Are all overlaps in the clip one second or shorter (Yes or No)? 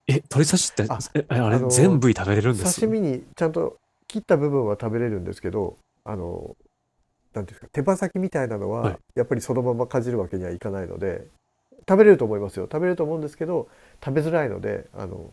Yes